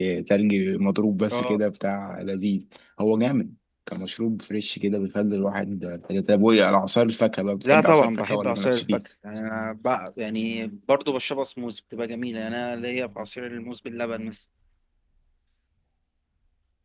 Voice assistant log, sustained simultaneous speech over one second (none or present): present